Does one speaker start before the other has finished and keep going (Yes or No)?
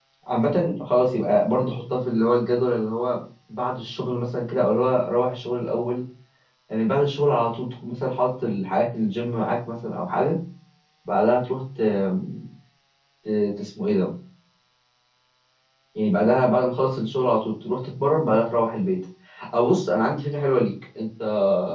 No